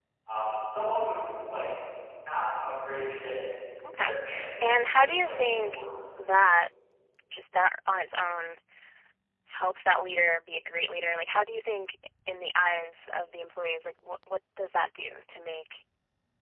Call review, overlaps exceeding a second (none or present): present